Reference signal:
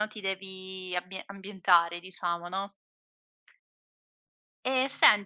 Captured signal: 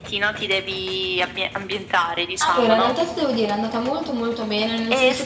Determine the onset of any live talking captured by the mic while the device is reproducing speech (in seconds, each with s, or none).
2.4 s